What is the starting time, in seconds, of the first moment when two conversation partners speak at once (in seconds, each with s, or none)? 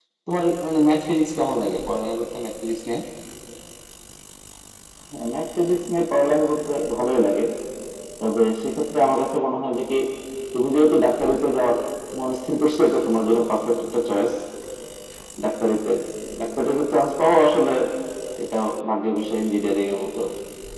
none